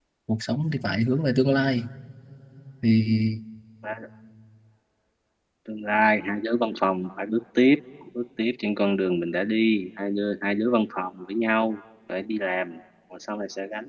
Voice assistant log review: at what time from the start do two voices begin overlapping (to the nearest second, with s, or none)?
none